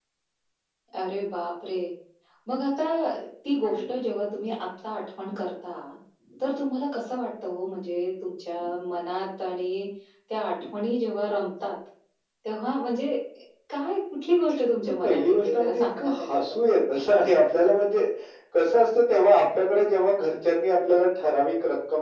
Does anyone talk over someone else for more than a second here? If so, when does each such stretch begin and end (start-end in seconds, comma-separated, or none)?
15.0-16.8